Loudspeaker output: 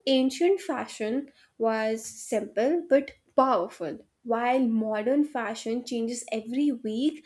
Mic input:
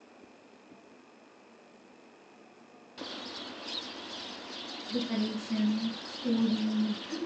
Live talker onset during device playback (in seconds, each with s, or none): 4.9 s